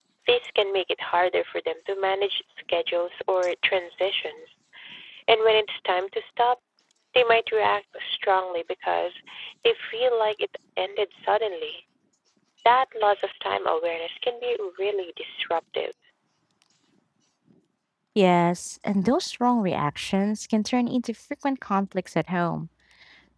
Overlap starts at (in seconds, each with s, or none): none